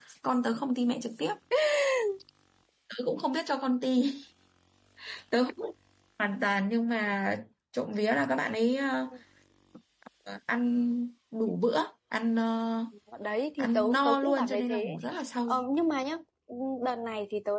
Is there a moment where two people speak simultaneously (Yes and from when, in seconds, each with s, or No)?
Yes, from 13.6 s